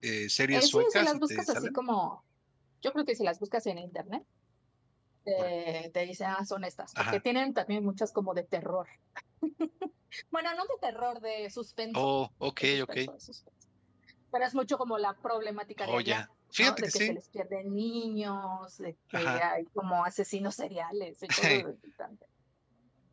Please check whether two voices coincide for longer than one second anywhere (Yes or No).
Yes